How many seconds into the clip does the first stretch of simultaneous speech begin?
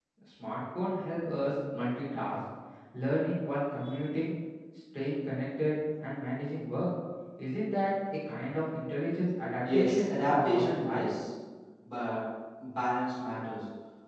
9.6 s

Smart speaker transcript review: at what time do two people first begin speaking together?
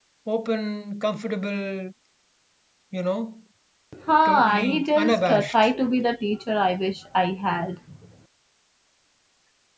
4.2 s

